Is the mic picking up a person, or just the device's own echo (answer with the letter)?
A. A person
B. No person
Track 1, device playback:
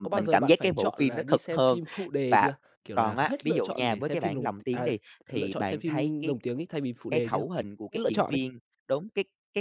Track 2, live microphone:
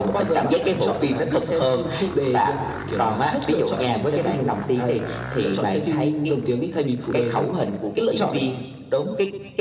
B